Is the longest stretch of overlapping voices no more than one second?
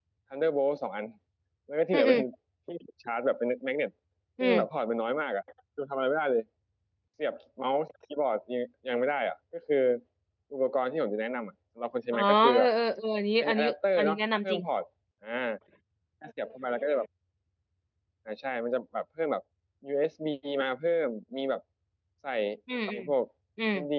No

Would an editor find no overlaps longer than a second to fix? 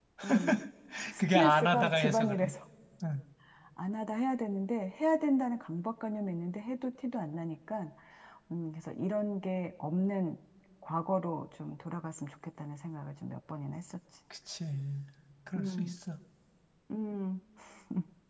No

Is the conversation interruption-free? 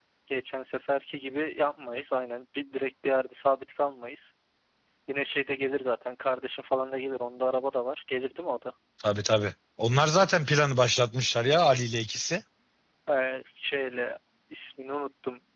Yes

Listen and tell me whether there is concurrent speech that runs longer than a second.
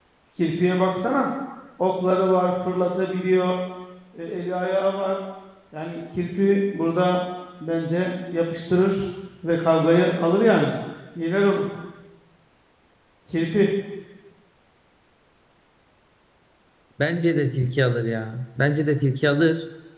No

